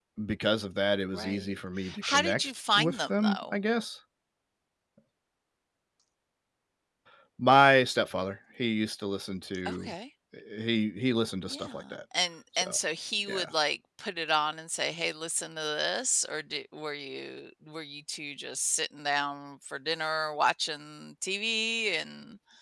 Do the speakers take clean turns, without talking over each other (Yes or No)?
No